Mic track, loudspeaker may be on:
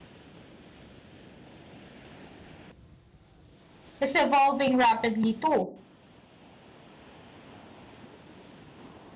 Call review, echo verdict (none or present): none